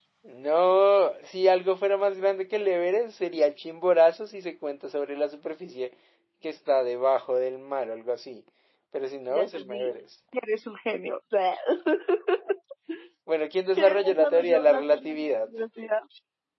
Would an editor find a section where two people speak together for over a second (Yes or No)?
Yes